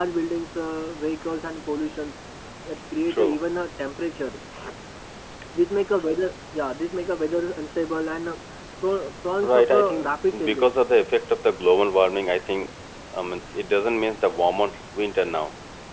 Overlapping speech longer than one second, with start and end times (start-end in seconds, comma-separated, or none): 9.4-10.7